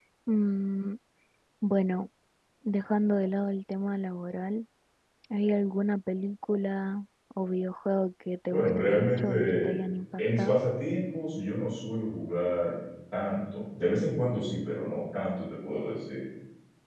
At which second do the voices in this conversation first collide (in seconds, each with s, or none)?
8.5 s